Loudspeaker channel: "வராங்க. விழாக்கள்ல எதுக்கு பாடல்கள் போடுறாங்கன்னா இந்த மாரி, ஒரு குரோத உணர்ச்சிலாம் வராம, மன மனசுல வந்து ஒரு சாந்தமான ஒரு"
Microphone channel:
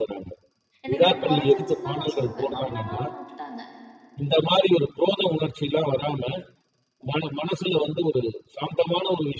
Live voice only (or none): என்ன கேட்டா கொறஞ்சிருச்சுன்னு தான் நான் சொல்லுவேன். நம்மளலாம் விட்டுட்டாங்க.